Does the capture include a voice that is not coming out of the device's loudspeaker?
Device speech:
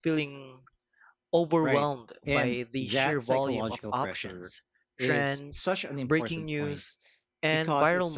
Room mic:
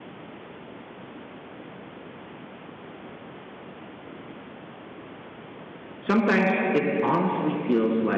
Yes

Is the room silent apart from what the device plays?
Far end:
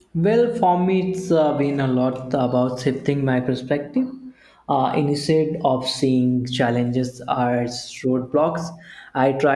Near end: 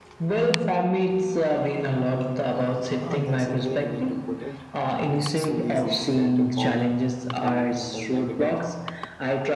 No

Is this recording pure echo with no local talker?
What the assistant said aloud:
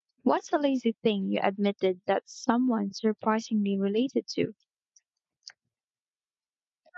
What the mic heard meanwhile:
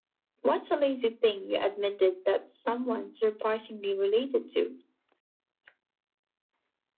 Yes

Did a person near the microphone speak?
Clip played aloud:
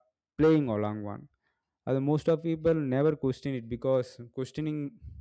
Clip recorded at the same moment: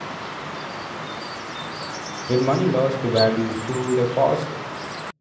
Yes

